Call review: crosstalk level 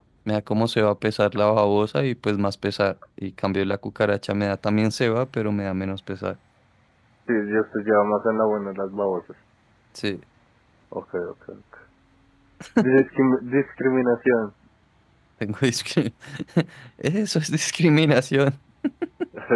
none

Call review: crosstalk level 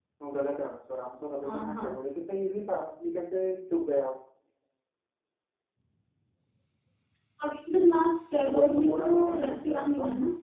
present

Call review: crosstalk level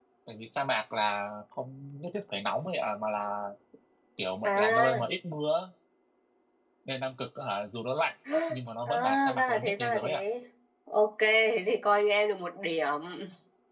present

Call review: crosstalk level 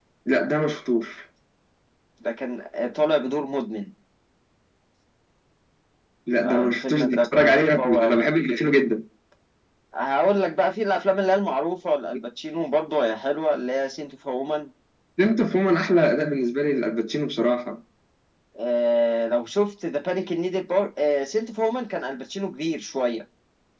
present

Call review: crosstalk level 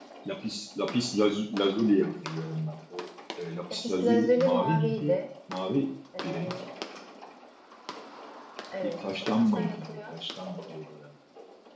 present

